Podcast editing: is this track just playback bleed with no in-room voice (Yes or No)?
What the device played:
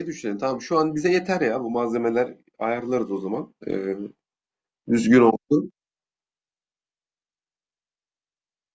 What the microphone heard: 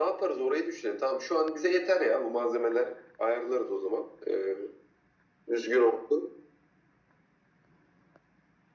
Yes